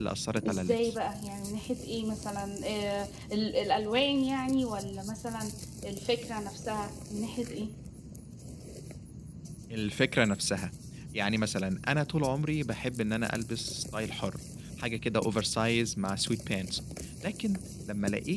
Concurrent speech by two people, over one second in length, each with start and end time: none

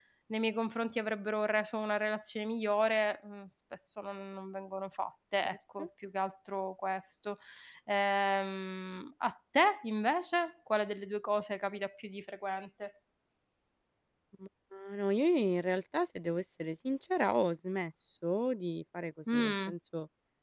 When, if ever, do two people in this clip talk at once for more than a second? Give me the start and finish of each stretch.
none

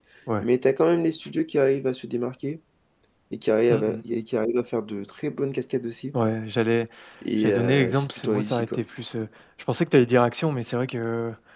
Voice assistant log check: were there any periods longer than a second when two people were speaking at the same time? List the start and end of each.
7.4-8.8

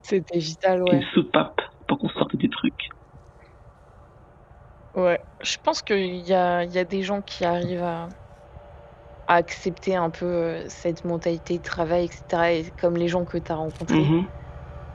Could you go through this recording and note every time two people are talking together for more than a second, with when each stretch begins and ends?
none

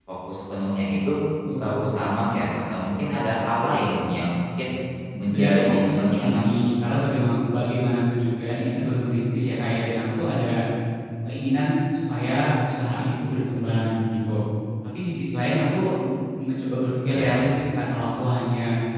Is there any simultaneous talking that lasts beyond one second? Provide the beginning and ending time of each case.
5.2-6.6

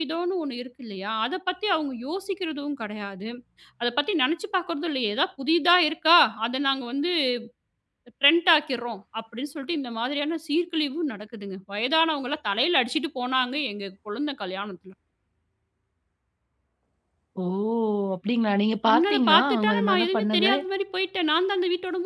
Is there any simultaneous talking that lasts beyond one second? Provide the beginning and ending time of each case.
18.9-20.4

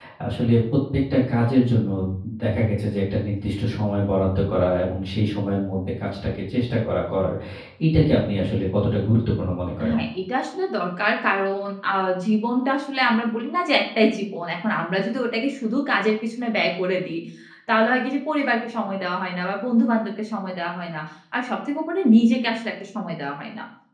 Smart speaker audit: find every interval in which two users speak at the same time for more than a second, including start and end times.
none

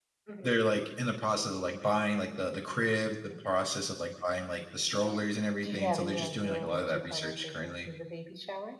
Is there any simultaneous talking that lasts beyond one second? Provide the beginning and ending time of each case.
5.6-7.9

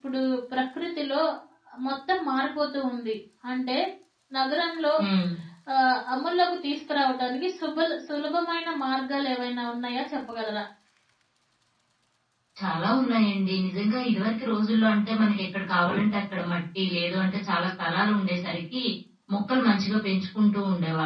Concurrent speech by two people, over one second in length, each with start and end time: none

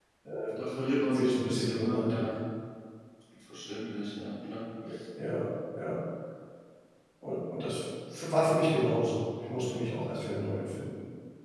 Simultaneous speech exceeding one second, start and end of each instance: 1.0-2.2

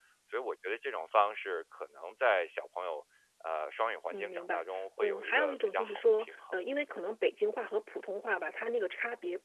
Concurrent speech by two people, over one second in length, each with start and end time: 5.0-6.5

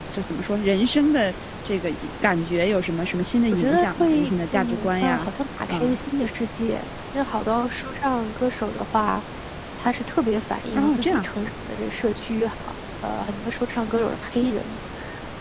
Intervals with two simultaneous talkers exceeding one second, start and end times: 3.5-5.3

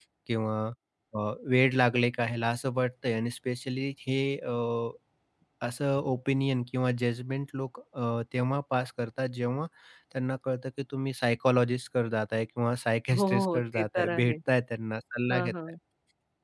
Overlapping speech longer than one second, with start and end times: 13.1-14.3

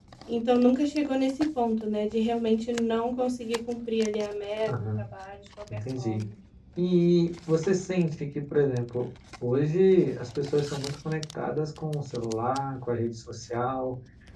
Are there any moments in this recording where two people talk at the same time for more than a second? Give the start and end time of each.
none

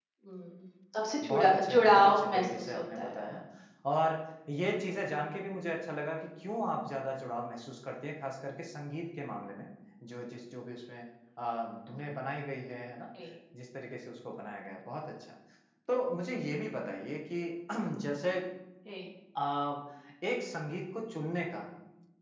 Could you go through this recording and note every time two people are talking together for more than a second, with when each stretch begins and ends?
1.3-3.3

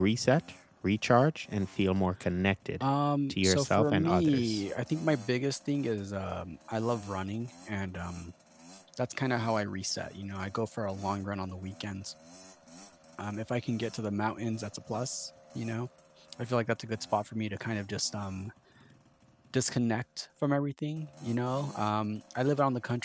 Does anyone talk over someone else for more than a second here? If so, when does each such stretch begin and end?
3.3-4.6

